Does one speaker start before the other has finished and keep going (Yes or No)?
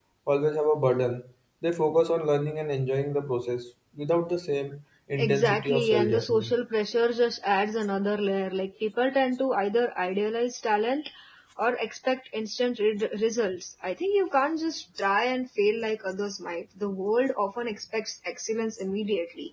Yes